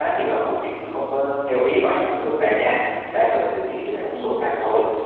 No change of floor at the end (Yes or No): Yes